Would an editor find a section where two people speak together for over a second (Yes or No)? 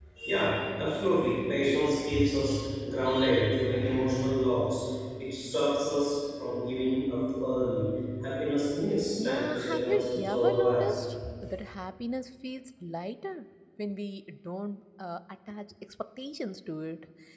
Yes